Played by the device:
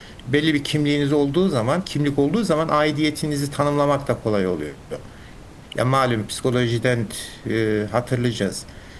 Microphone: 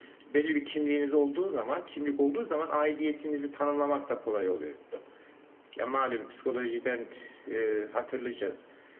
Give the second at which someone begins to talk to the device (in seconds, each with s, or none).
none